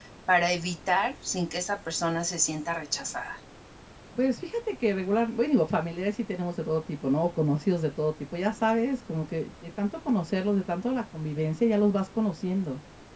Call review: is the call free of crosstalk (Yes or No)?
Yes